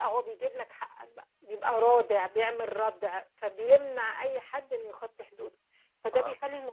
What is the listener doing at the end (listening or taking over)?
listening